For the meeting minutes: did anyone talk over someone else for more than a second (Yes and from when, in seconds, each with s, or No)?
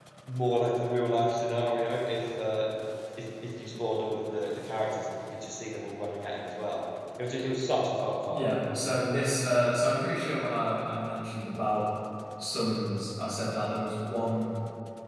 No